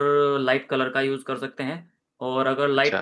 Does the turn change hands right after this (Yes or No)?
No